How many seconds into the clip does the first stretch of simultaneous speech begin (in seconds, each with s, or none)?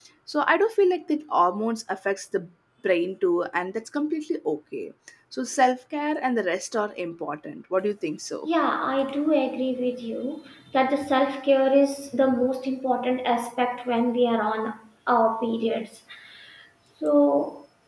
none